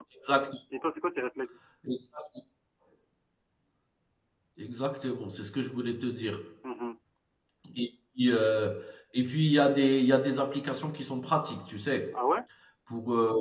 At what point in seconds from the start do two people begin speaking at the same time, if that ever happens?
none

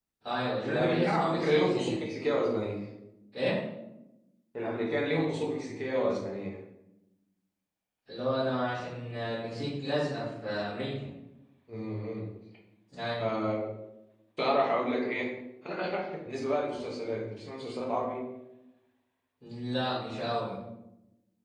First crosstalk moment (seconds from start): 0.7 s

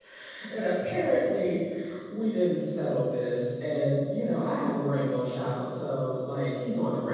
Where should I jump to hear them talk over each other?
none

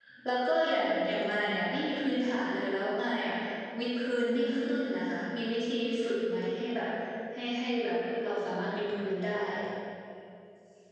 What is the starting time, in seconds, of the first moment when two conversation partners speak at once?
none

